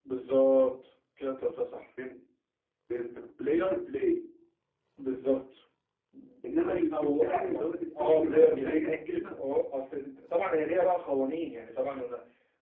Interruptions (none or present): present